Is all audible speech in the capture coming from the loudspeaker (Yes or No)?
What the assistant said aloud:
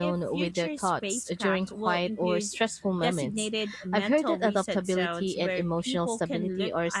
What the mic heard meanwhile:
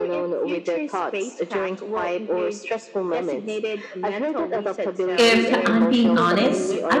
No